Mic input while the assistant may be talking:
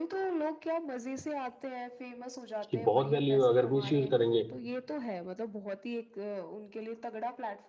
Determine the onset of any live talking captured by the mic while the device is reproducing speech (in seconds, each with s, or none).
2.6 s